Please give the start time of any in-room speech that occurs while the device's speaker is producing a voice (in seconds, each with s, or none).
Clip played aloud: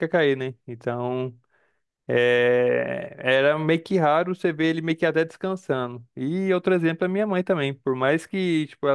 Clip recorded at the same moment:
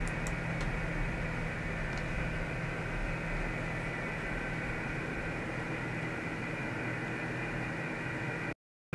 none